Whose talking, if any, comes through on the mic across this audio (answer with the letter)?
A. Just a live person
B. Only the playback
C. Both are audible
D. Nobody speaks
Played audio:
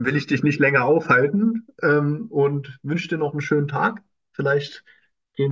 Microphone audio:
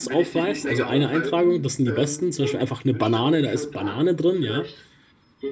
C